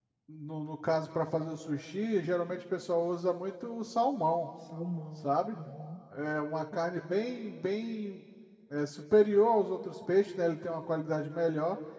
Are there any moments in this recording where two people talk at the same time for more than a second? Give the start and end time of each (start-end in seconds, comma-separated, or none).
none